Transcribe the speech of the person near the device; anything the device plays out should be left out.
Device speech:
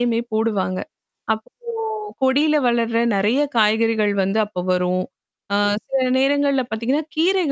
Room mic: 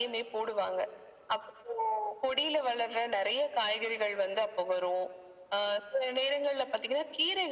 none

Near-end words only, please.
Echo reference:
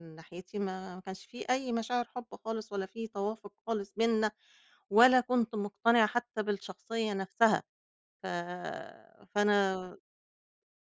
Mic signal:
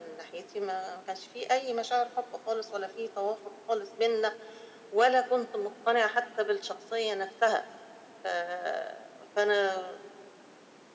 none

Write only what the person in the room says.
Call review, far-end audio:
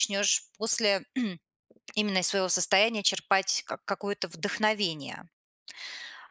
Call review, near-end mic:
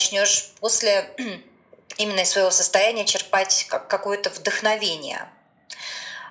none

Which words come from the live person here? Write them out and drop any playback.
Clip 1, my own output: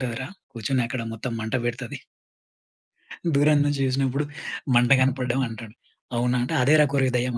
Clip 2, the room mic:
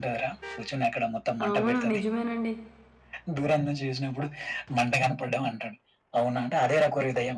అవును. నిజమేనండి.

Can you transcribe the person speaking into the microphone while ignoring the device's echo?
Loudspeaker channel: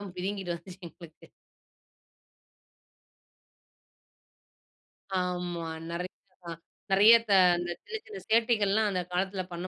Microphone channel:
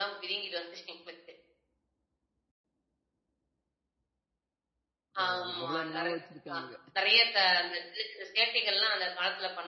பரவாயில்ல. அவ்வளோ ஞாபகம் வச்சிருக்காங்க.

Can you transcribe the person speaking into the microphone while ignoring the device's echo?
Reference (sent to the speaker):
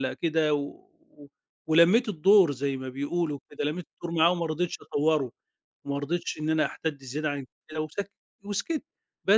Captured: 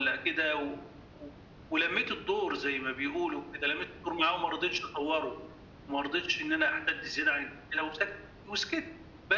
none

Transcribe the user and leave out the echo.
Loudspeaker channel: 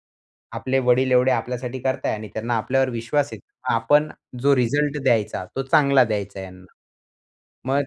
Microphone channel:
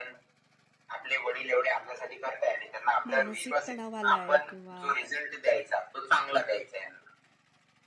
मानसिक तणाव आलाय किंवा

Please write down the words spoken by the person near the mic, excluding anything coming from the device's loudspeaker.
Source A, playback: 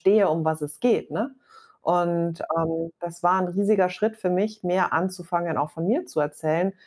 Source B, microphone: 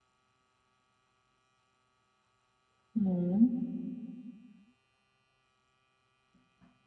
Mhm.

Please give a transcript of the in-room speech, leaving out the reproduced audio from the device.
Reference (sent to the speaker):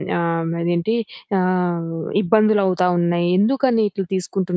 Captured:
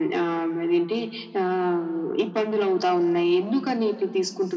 none

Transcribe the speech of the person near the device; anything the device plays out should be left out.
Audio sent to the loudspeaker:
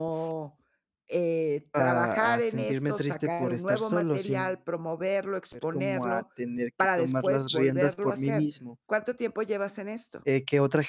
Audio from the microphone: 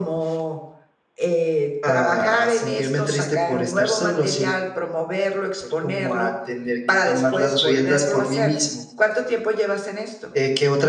none

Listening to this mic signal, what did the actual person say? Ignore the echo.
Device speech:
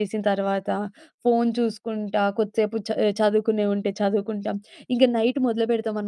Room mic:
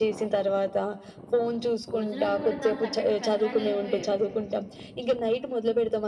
భోజనాలు కూడా దానికి తగ్గట్టు పెంద్రాలైపోయేవి.

